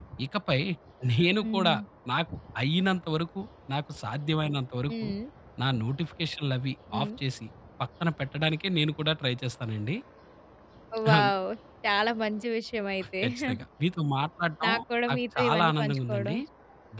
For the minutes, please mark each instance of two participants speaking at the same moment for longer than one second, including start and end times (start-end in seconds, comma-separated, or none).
15.1-16.3